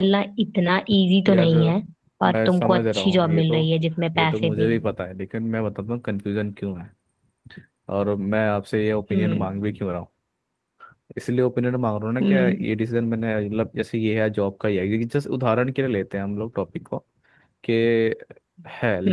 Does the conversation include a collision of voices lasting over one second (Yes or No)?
Yes